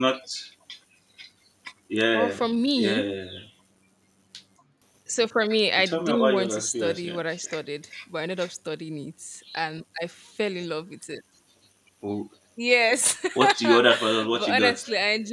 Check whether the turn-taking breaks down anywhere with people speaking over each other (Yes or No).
Yes